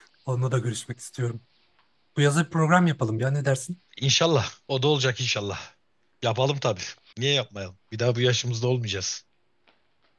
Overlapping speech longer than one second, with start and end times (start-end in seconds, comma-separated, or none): none